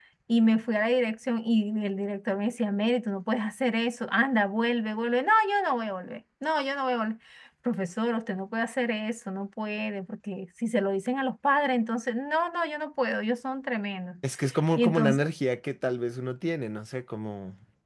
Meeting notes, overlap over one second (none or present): none